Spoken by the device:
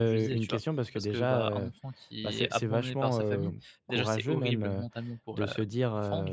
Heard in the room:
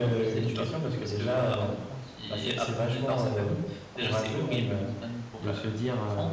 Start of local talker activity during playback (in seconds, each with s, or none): none